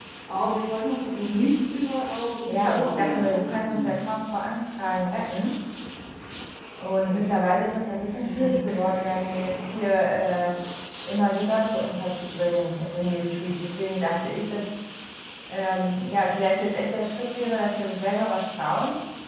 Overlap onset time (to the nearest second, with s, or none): 2 s